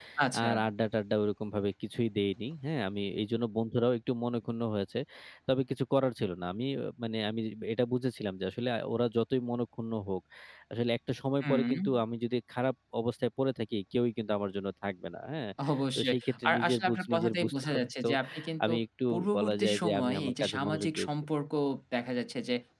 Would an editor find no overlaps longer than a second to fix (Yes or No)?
No